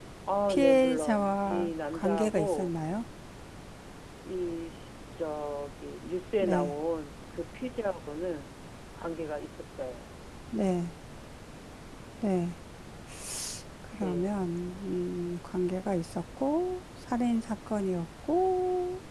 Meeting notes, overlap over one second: present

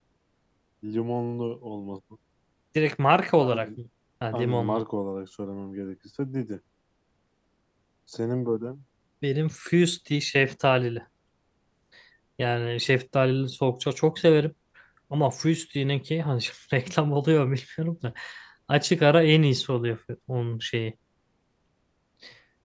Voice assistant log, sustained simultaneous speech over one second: none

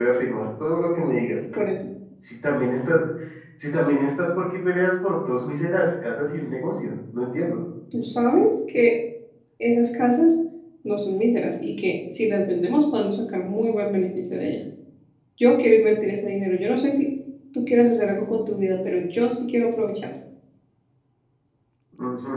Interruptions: none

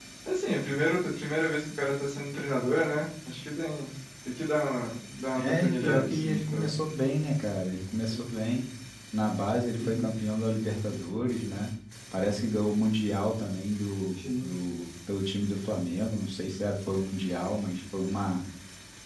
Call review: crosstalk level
present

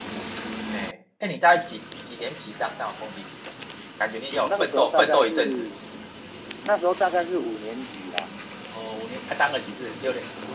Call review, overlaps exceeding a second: present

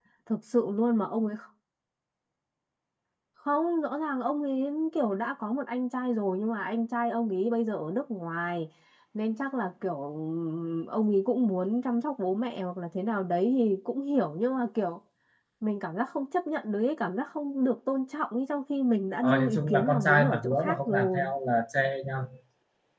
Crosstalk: present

